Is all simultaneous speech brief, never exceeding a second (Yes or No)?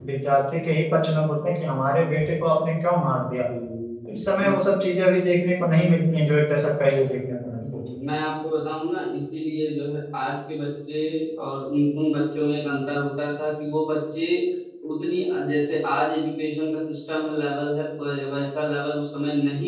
Yes